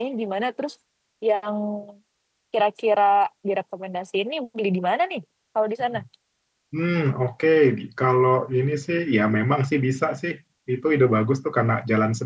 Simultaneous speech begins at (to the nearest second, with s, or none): none